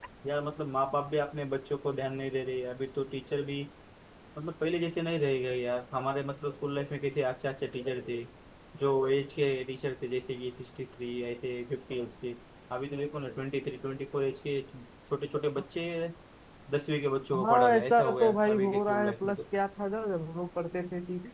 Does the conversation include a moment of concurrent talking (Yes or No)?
Yes